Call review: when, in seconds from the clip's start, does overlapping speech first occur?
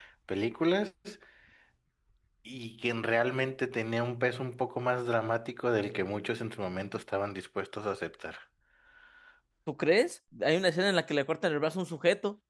none

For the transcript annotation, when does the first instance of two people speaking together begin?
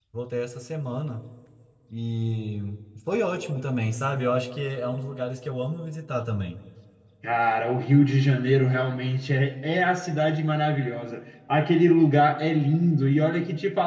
none

